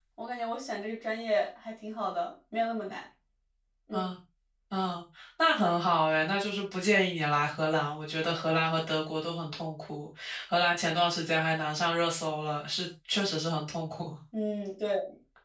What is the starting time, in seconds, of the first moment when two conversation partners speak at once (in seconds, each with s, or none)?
none